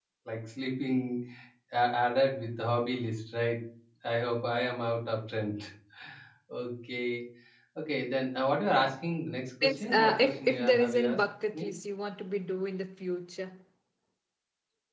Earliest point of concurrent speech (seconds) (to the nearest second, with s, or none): 10 s